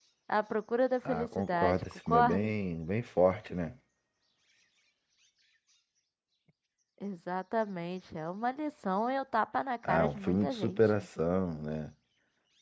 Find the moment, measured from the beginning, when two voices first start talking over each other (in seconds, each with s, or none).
1.1 s